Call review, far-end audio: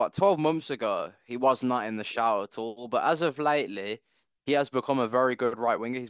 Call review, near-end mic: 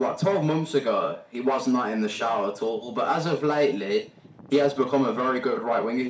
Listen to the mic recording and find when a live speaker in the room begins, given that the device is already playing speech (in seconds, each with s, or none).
none